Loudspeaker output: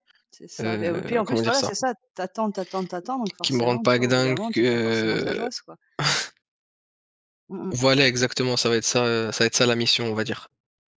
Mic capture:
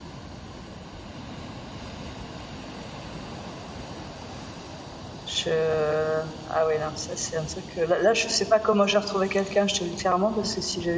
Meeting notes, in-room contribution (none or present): present